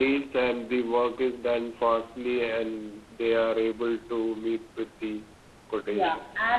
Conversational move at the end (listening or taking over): taking over